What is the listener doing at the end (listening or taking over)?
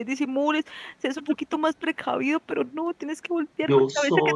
listening